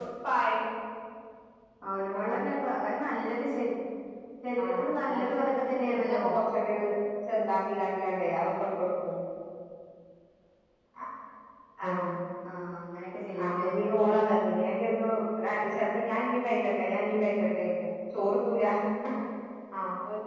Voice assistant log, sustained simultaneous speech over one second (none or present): present